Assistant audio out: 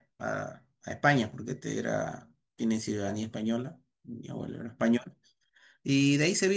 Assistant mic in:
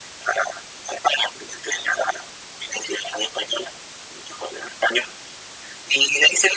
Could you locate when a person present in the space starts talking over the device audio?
none

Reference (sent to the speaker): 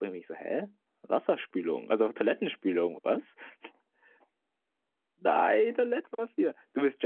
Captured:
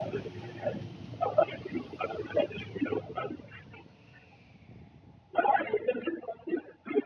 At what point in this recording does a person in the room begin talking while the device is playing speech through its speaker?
none

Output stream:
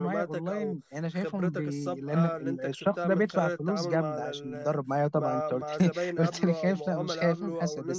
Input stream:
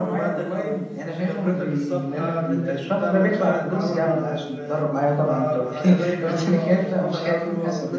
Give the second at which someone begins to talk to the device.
none

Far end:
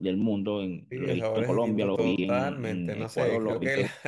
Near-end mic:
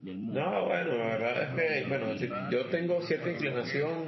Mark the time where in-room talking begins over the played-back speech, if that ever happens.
0 s

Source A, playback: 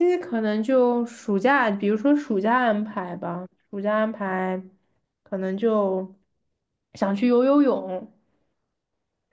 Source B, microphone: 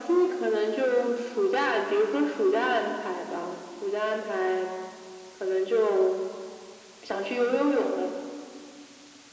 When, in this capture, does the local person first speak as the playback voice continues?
none

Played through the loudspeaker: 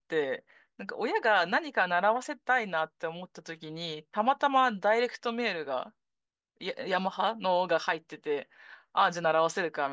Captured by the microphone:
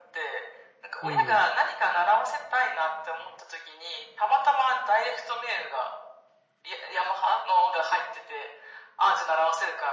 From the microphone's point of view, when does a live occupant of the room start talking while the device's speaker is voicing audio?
1 s

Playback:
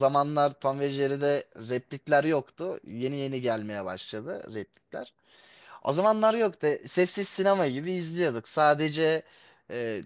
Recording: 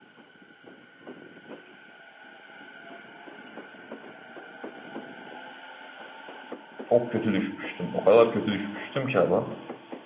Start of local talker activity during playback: 7 s

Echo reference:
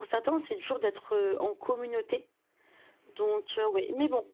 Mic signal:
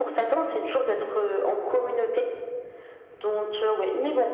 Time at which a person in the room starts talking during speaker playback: none

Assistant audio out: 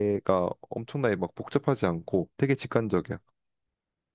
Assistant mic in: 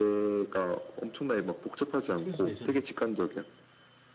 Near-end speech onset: 2 s

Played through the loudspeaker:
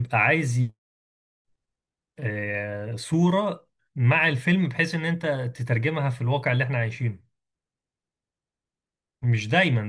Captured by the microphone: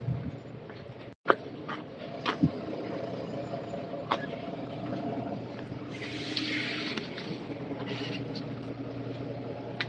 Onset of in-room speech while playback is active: none

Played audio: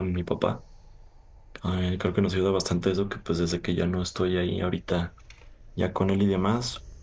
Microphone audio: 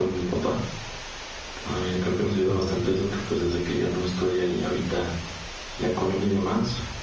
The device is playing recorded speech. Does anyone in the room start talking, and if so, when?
2 s

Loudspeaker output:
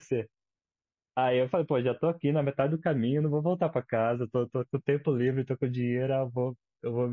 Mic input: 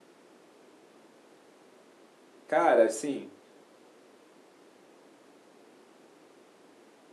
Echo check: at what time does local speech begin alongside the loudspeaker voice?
2 s

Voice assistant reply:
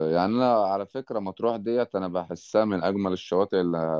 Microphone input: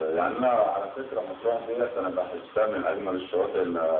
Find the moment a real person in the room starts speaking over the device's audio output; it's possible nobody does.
none

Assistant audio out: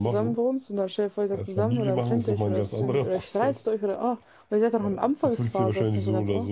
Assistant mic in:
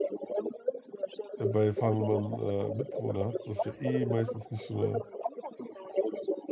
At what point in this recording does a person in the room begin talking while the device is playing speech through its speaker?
1 s

